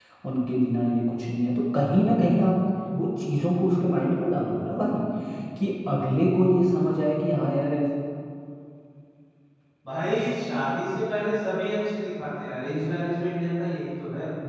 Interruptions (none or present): none